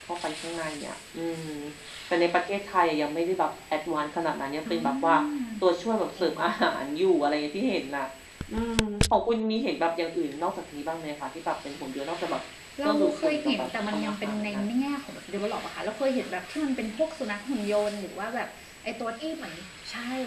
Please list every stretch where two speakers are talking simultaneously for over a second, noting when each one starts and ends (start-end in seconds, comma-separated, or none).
12.8-14.7